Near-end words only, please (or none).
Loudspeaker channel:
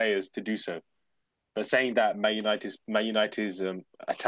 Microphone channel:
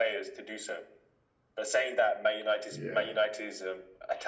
Yeah,